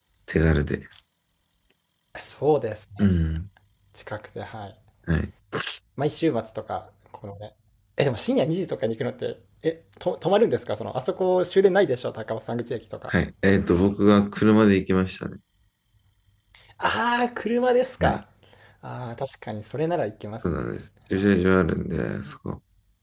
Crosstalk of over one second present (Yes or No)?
No